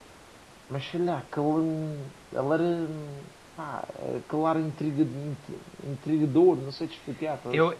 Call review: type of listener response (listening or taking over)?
taking over